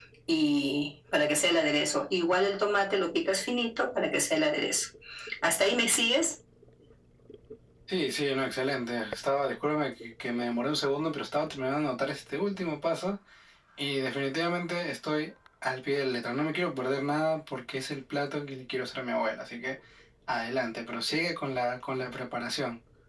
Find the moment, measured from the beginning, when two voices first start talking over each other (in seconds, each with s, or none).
none